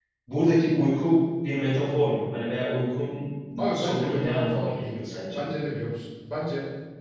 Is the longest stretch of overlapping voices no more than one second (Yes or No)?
No